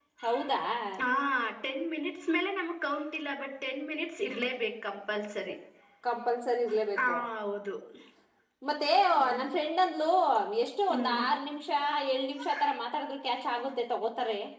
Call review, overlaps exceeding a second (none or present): none